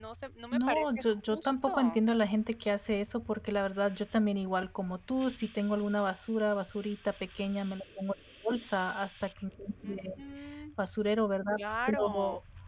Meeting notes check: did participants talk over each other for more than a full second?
Yes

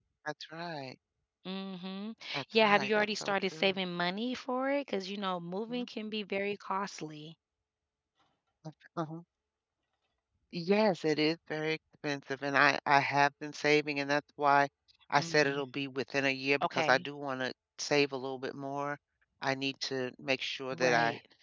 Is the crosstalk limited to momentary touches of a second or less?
No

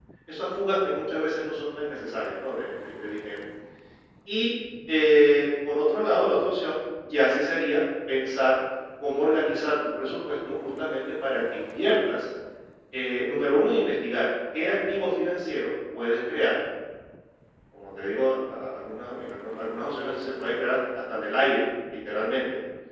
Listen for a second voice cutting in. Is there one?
No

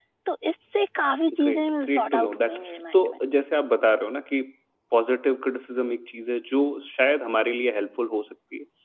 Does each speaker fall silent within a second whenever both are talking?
No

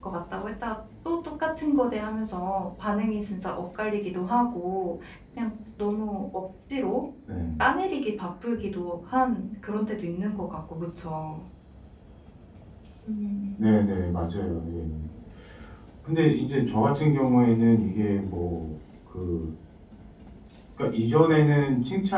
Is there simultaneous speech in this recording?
No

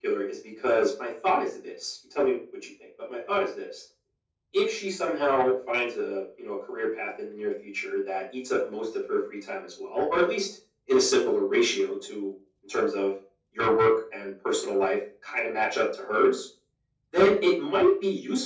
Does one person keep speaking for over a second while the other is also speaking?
No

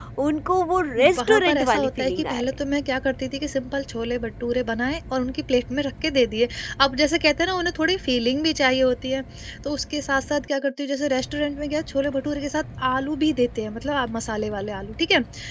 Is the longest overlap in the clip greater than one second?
Yes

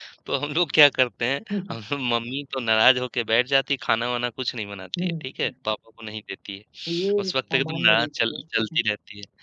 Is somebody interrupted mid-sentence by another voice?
Yes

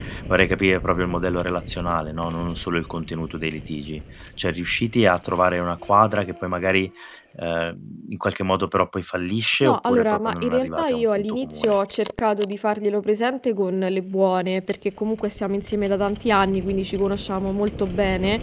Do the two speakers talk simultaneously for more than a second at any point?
Yes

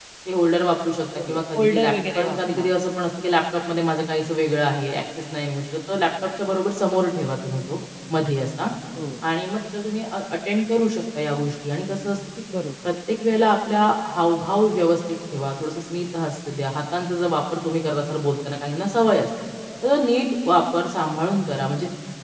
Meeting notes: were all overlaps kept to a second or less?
No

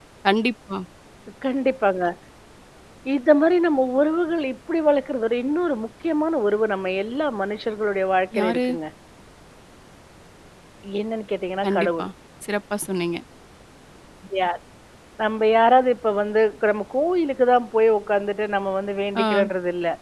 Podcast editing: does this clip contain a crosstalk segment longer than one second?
No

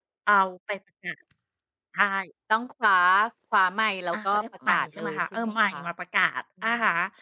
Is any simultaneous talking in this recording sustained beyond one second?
Yes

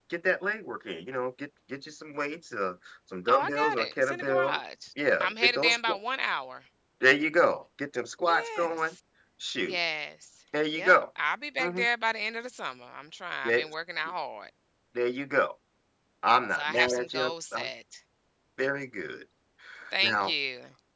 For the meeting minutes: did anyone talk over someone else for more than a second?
Yes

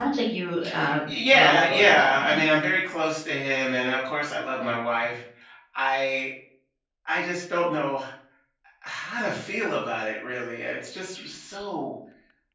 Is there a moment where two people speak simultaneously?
Yes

